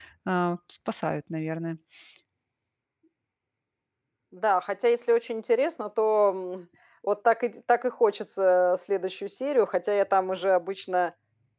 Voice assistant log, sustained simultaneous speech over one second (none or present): none